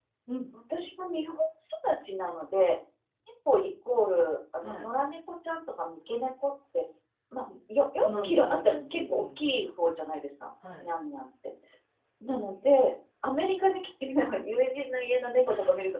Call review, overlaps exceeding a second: present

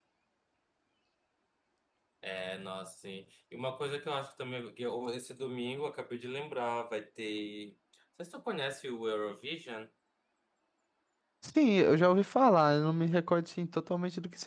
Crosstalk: none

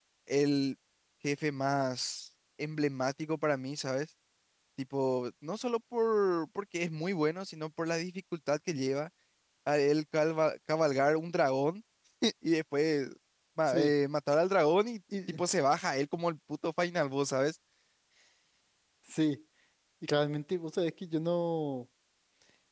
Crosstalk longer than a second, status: none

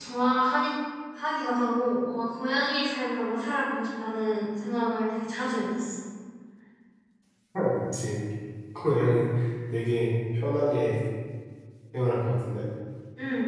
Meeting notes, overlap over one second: none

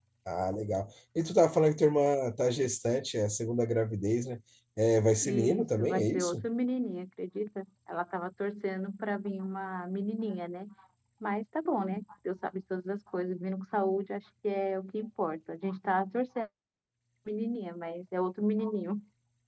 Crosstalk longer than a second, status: present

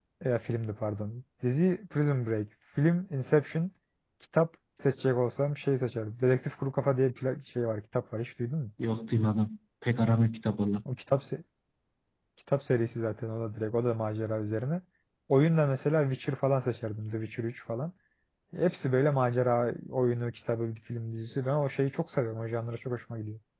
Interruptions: none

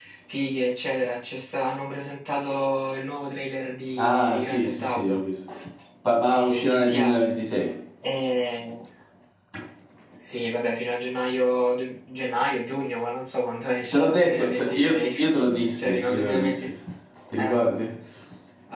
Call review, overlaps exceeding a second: present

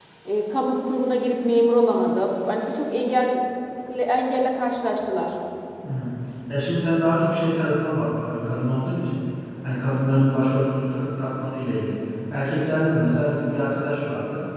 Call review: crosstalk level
none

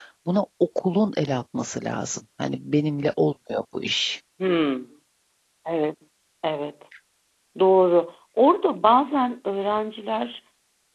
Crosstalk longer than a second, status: none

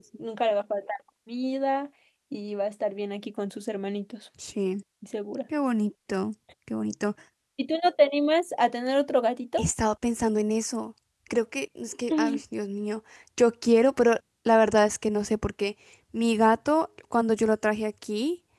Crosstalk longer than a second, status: none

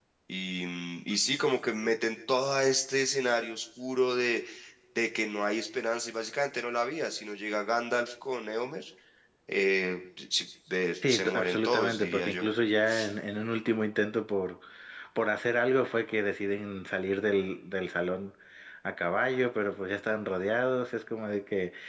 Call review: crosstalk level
present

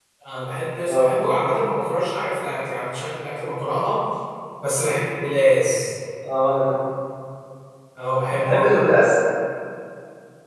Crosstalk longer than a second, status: none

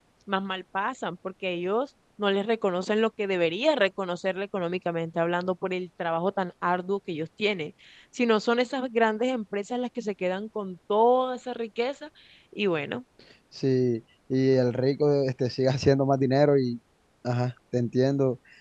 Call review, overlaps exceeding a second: none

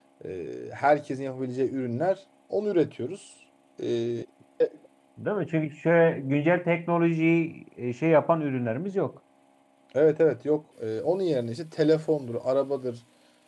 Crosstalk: none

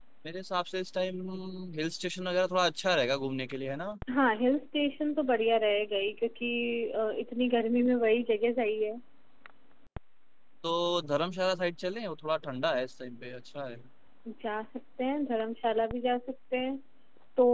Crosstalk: none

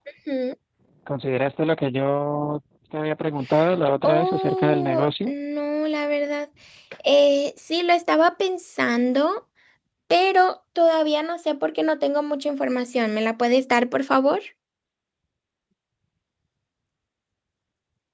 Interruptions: present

